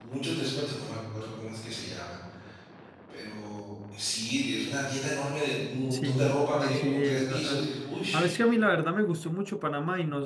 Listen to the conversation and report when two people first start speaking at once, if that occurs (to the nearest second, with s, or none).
6 s